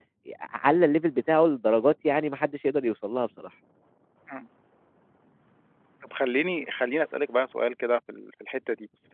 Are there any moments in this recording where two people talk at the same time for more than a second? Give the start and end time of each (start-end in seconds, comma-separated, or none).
none